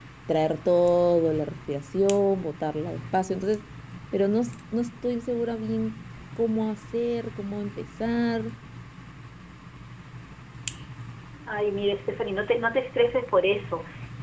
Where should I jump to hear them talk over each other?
none

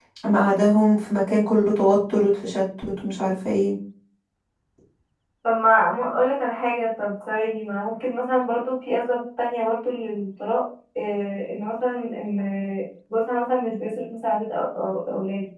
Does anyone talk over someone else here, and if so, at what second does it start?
none

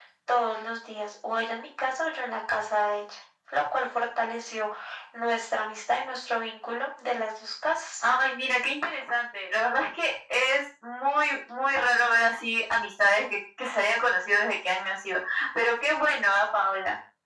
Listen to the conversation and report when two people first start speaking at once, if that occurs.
none

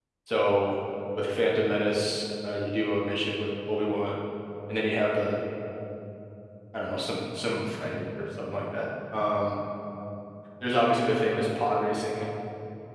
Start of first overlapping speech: none

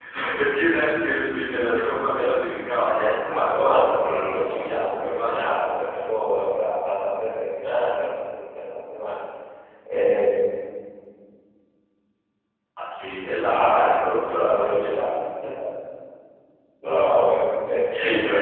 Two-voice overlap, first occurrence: 3.3 s

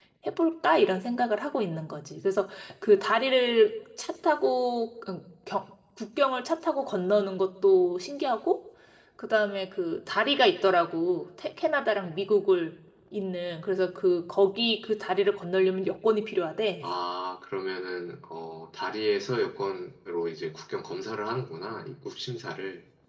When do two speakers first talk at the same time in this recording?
none

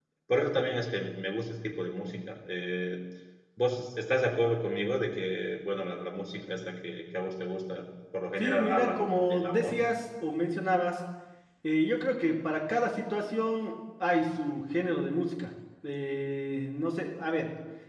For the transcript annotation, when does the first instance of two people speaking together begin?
8.4 s

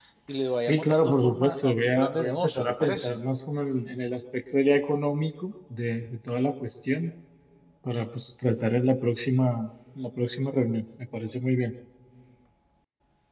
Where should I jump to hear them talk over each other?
0.7 s

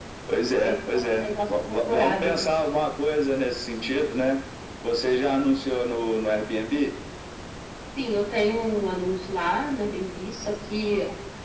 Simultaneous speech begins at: 0.6 s

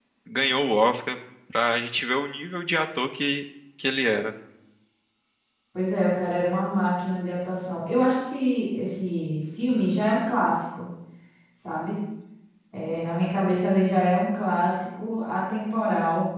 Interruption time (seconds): none

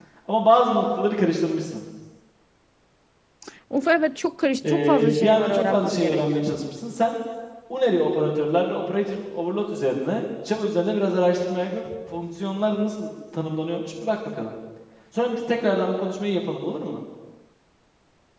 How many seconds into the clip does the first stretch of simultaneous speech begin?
4.6 s

